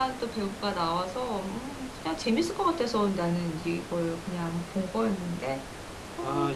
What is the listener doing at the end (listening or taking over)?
taking over